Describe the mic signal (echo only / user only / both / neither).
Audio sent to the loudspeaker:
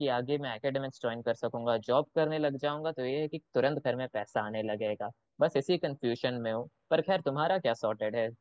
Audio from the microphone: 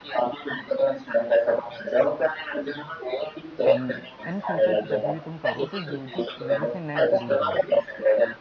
both